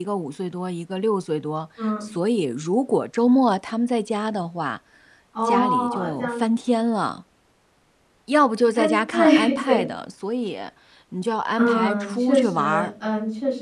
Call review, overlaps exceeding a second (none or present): present